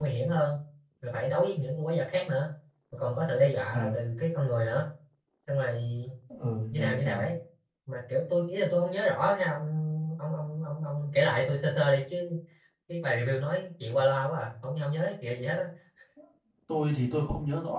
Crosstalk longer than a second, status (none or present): none